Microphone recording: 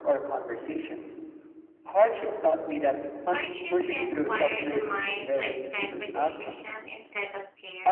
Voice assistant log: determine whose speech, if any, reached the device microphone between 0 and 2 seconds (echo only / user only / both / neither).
echo only